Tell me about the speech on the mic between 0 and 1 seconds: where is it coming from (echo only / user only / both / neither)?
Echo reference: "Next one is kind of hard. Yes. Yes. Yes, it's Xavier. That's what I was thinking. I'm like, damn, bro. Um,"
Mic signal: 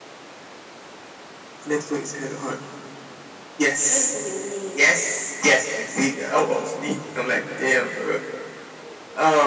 neither